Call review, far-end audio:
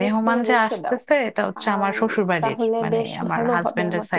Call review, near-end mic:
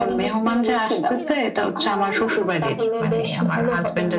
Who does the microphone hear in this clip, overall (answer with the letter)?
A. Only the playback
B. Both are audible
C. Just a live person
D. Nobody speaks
B